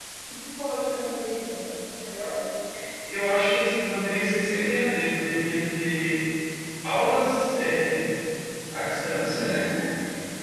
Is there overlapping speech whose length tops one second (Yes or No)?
No